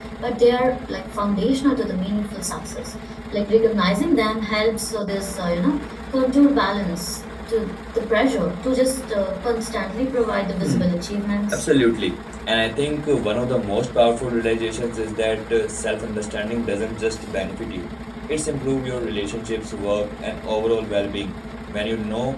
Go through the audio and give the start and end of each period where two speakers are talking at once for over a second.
none

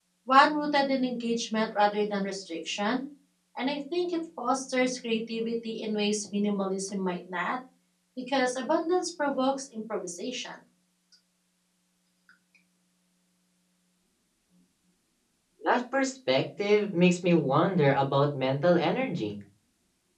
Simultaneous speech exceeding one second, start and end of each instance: none

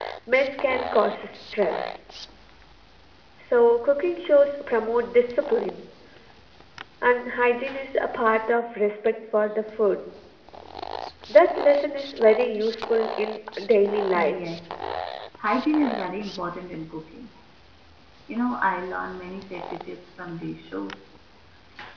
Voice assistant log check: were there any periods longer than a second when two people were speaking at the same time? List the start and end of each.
none

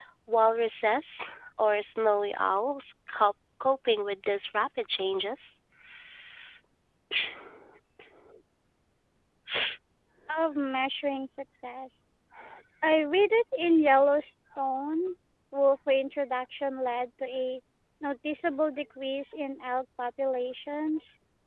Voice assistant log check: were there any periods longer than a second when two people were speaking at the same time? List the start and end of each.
none

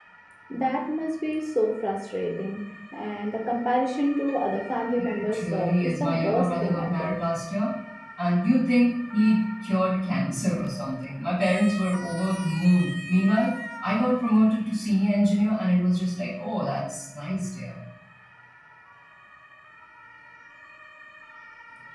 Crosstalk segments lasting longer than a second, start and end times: 5.2-7.2

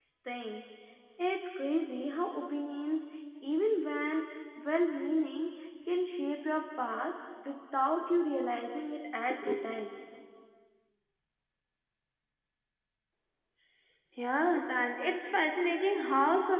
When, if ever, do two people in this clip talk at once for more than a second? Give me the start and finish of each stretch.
none

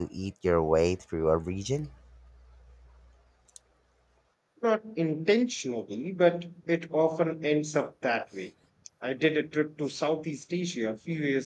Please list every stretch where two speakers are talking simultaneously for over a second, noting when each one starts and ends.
none

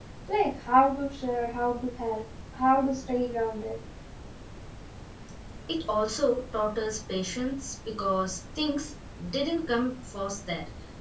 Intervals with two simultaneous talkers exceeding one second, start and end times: none

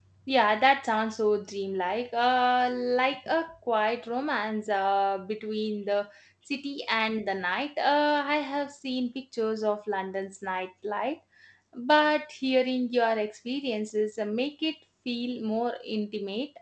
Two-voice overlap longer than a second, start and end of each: none

